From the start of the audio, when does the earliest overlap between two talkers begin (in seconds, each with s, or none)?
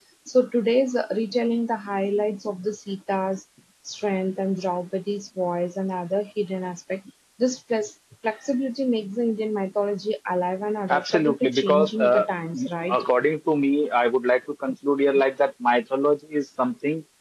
10.9 s